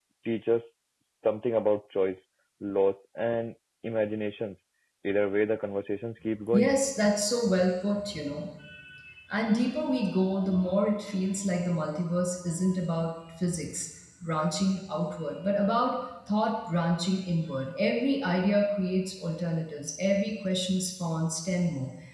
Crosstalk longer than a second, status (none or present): none